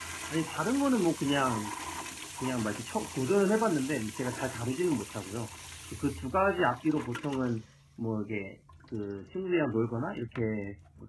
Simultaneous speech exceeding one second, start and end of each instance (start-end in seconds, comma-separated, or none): none